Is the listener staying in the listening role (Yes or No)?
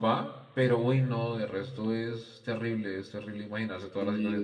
No